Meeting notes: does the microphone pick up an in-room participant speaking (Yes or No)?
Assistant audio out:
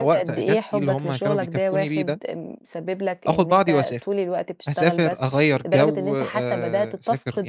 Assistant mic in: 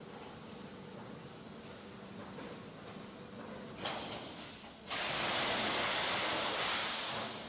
No